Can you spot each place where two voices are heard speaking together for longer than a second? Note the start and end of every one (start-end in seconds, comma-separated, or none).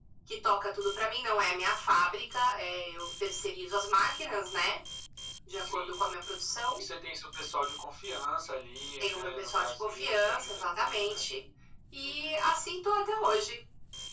9.0-11.2